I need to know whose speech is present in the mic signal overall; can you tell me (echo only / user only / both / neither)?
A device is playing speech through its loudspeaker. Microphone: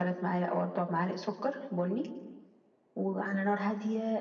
echo only